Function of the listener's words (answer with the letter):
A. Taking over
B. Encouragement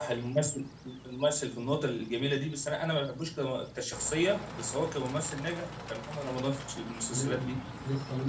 A